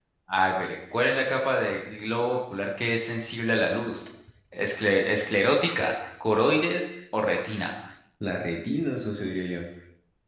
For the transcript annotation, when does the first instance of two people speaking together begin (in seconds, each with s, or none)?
none